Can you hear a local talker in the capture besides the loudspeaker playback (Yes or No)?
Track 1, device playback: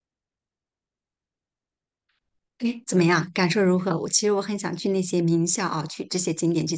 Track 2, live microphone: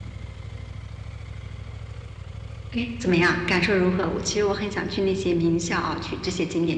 No